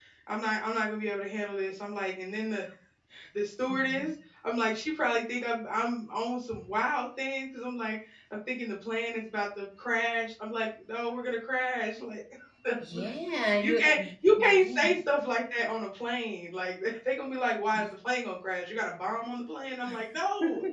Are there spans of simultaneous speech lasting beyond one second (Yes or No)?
Yes